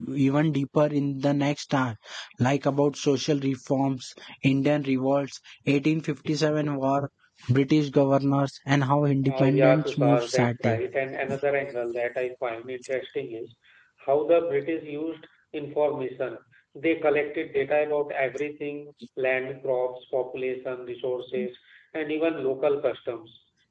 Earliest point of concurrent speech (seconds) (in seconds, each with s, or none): 9.2 s